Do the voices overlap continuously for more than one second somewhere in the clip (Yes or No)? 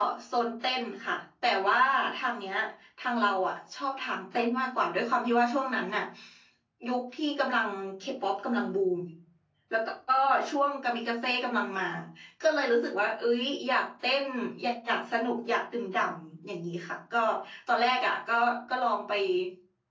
No